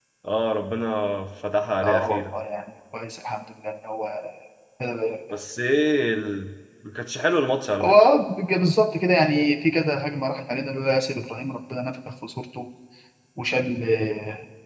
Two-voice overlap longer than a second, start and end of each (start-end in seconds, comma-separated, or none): none